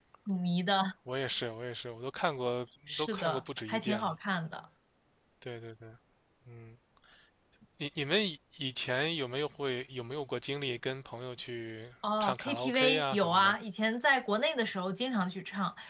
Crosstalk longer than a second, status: present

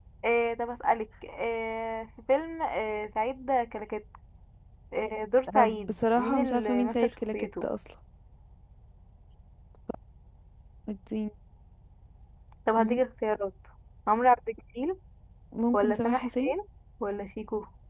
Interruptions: present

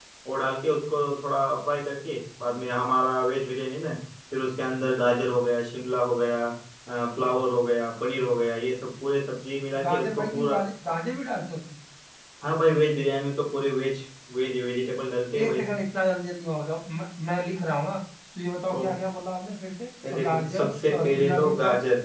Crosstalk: present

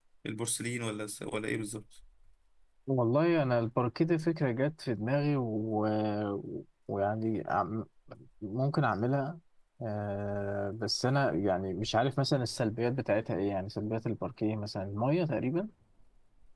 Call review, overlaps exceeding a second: none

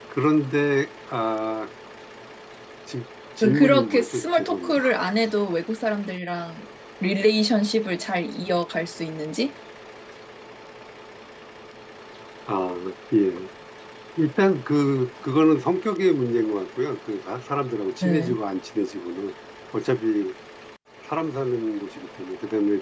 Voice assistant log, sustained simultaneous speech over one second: present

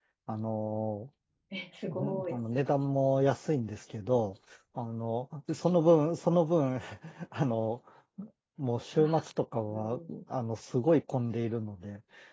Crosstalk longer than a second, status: none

